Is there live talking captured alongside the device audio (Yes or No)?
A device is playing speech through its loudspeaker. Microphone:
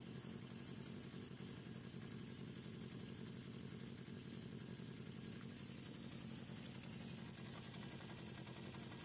No